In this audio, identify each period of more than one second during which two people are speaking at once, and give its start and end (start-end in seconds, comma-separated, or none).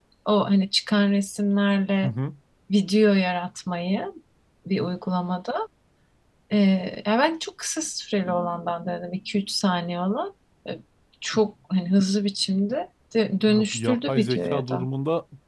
13.5-14.8